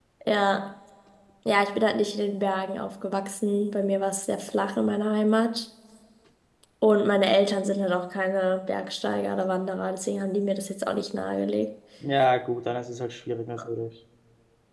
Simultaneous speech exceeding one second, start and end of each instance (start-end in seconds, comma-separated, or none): none